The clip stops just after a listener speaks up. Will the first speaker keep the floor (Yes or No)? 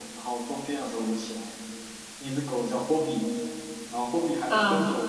Yes